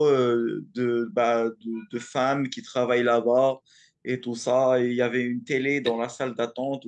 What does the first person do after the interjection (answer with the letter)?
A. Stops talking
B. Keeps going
B